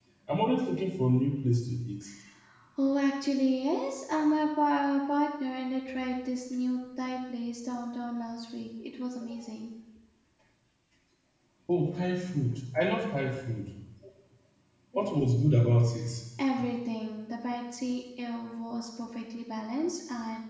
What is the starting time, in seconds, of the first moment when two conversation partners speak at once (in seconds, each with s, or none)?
none